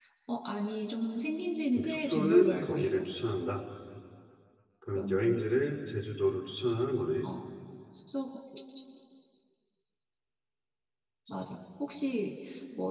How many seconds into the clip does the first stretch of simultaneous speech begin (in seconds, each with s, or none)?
1.8 s